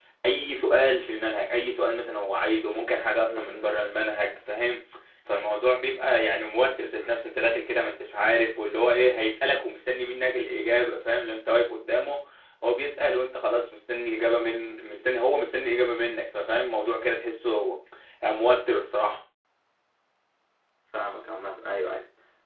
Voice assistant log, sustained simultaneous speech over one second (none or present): none